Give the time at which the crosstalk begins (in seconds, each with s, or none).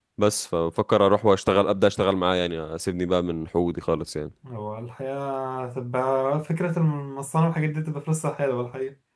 none